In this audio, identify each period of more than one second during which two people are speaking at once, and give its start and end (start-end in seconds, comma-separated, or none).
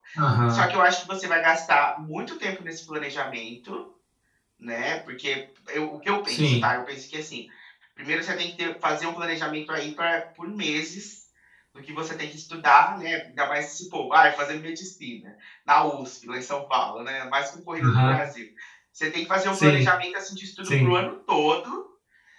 none